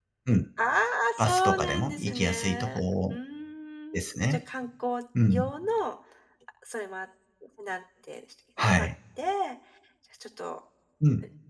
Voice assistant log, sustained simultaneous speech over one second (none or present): present